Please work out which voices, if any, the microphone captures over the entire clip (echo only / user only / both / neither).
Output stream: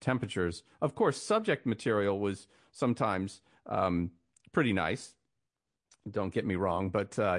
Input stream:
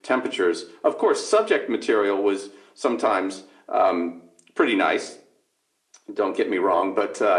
echo only